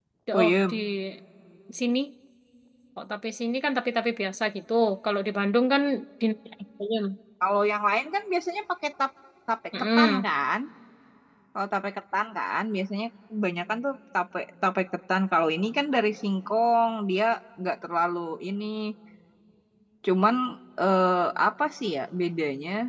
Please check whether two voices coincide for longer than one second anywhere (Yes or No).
No